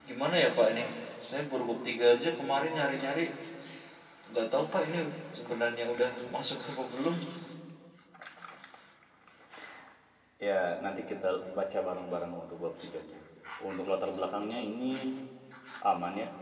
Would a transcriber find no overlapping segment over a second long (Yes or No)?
Yes